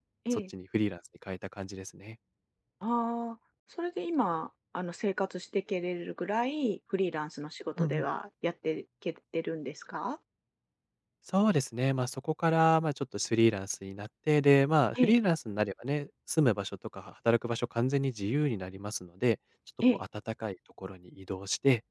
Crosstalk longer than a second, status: none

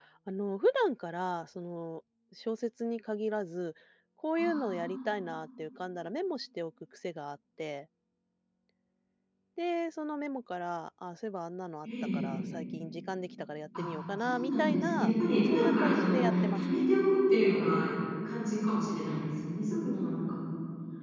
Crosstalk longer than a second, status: present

